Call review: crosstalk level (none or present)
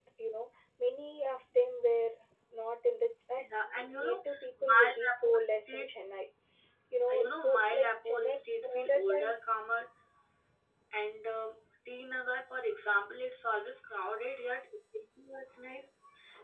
present